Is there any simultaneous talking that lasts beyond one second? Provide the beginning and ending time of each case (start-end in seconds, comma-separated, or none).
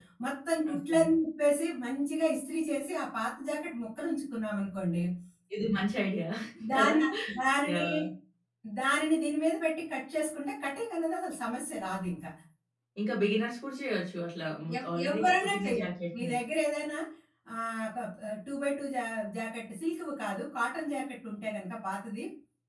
14.8-16.3